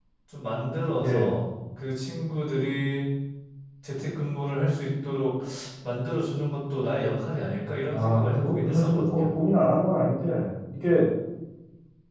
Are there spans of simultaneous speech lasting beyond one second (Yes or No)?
Yes